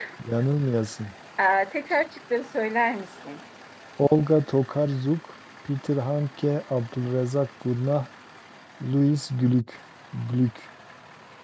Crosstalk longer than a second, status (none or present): none